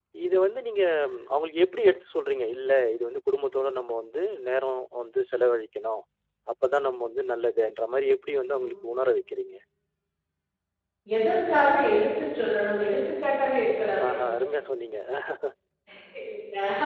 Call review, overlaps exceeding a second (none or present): none